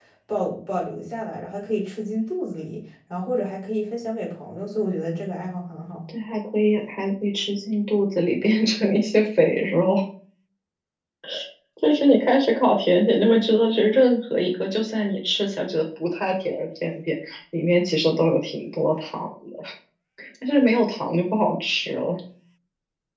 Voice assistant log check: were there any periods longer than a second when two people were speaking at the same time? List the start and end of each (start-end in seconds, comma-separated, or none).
none